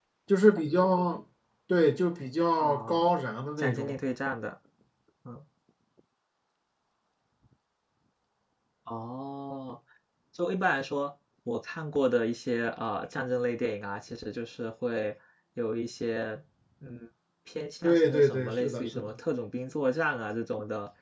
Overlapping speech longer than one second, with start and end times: 17.8-19.1

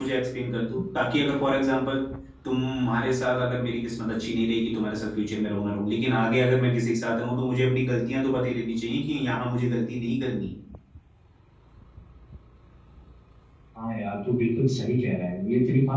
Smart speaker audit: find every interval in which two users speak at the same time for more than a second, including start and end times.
none

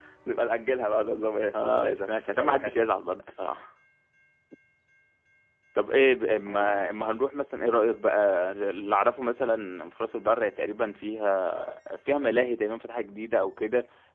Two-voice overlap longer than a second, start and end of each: 1.5-2.8

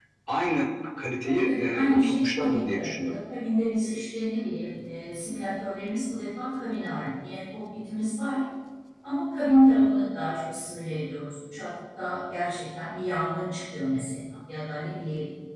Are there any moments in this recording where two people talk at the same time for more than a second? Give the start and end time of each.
1.2-3.2

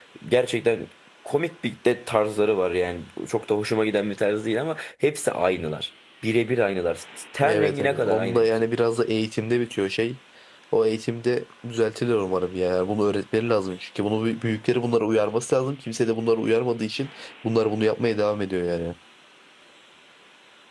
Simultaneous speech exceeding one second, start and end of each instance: 7.5-8.7

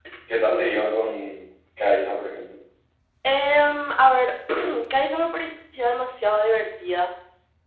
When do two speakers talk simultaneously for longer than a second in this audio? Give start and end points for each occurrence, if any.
none

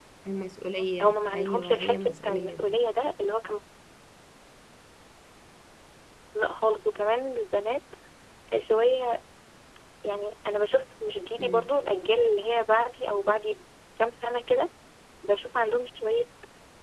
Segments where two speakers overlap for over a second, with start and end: 1.0-2.6

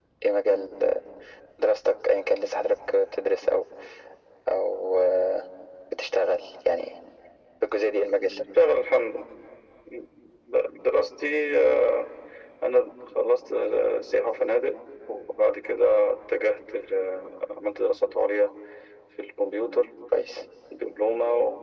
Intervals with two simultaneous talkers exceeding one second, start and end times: none

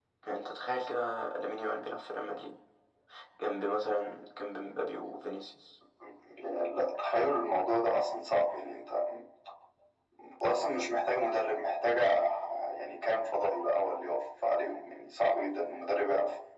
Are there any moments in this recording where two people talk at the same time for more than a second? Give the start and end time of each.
none

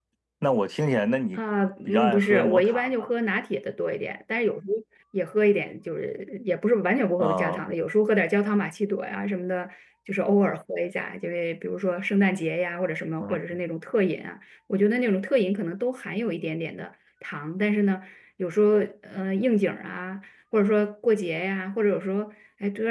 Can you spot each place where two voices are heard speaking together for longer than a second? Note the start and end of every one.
1.9-3.1

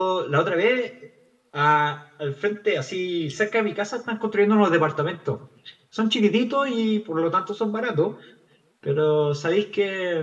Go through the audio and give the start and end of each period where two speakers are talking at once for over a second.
none

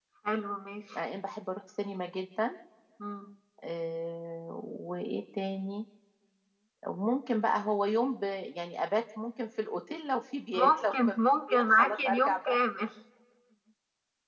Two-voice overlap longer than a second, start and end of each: 10.6-12.6

